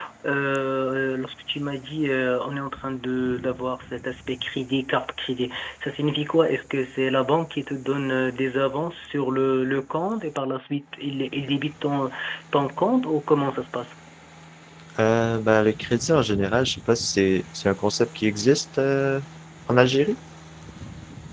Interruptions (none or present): none